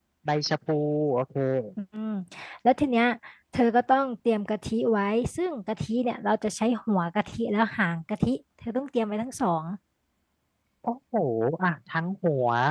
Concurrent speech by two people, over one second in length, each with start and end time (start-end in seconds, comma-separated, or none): none